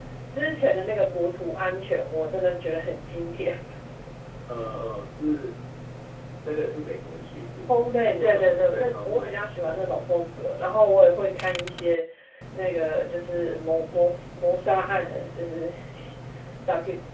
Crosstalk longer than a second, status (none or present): present